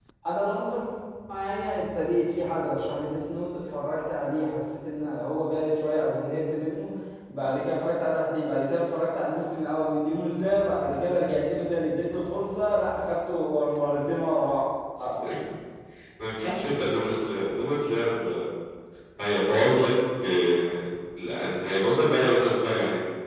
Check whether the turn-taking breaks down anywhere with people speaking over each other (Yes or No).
No